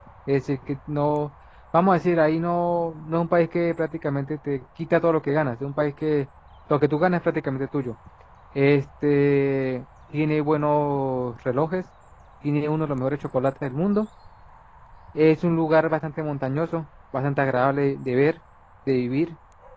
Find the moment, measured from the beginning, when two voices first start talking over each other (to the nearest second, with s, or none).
none